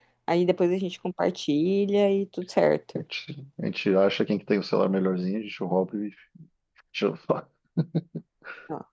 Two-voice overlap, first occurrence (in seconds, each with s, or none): none